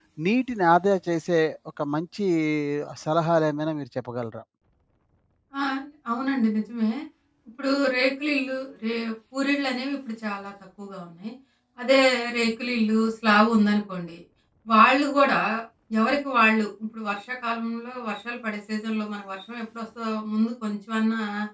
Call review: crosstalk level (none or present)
none